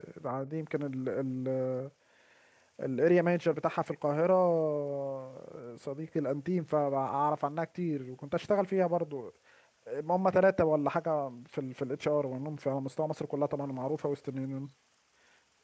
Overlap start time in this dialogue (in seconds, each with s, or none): none